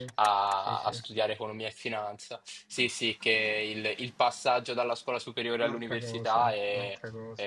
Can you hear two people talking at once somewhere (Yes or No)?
Yes